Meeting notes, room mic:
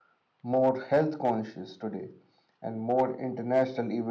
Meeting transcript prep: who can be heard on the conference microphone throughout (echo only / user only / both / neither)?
echo only